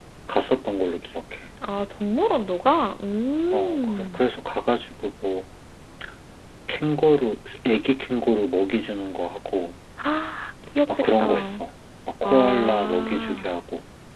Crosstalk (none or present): present